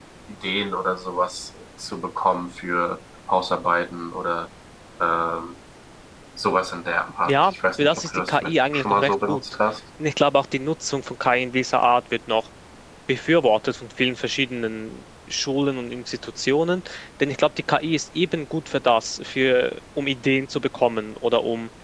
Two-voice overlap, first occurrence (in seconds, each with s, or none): 7.3 s